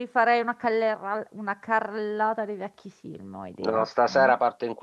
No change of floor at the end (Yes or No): No